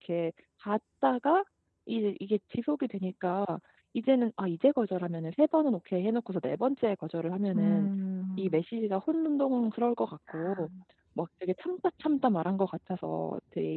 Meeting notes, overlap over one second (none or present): none